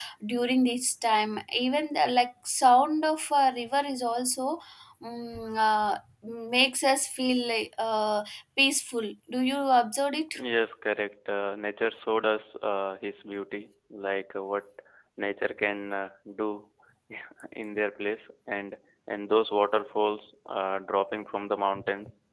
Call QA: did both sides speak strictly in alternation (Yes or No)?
Yes